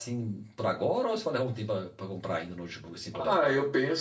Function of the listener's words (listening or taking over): taking over